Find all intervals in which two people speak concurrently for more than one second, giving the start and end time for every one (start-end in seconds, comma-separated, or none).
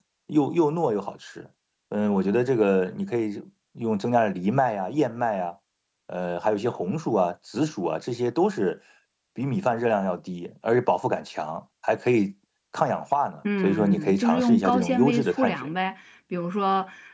13.6-15.7